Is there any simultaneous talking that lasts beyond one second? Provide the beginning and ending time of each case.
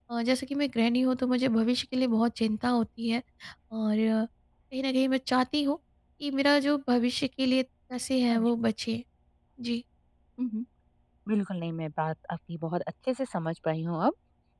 none

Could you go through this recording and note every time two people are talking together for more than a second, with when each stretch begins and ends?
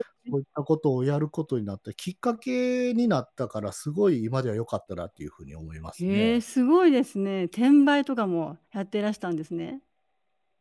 none

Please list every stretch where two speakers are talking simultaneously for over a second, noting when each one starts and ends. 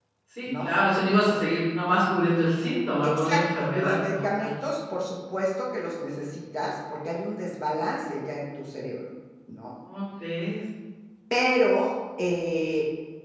3.0-4.5

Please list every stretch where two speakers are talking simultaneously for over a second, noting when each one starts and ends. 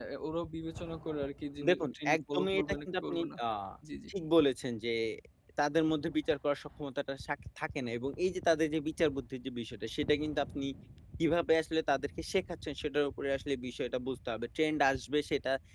1.7-3.3

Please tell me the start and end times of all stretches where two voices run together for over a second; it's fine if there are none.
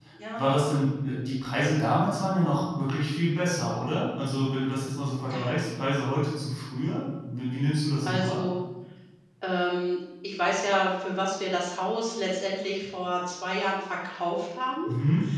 none

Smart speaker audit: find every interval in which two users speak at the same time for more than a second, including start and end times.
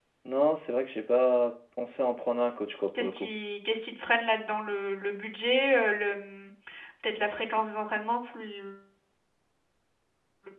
none

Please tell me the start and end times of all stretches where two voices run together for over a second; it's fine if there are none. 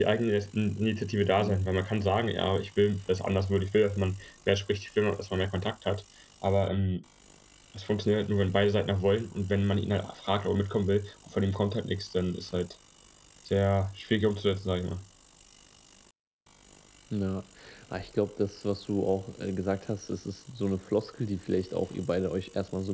none

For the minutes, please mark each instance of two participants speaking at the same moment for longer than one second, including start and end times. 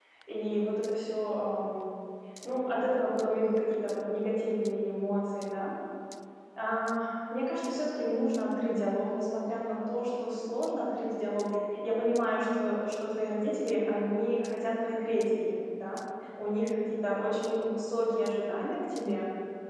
none

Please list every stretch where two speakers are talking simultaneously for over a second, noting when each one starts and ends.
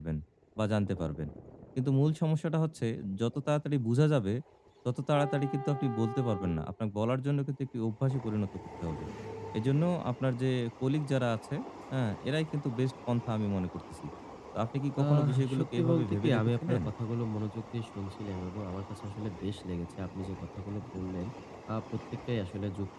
15.0-16.8

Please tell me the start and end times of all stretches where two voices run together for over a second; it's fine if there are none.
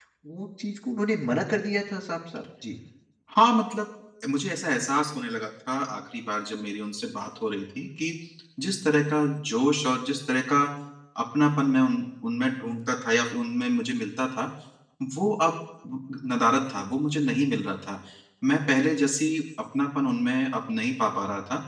none

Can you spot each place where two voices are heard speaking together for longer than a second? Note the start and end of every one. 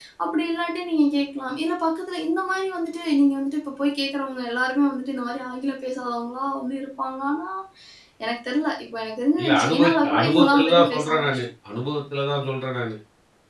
9.4-11.4

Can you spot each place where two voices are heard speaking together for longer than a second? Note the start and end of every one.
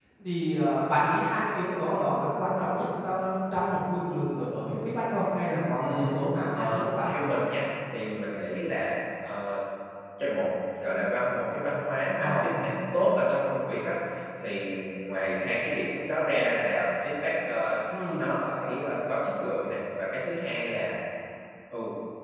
5.8-7.1

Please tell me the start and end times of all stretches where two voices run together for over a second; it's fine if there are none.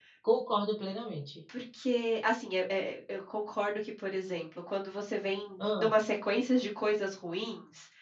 none

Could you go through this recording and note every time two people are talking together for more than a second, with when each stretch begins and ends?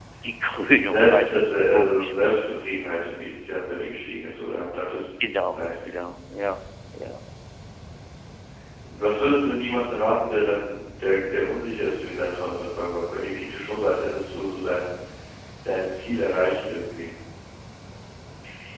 0.8-2.1

